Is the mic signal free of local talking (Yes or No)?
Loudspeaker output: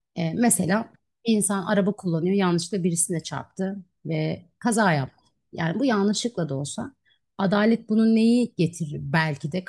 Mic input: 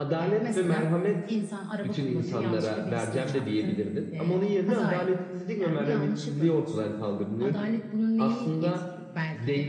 No